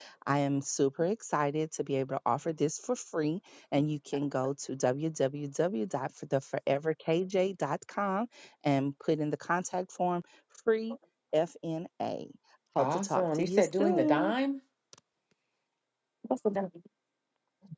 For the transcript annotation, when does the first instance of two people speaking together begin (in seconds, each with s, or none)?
12.8 s